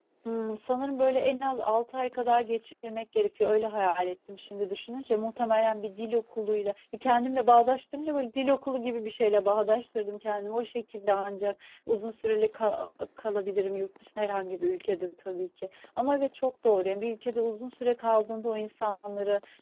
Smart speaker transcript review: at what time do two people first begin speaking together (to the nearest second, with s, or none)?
none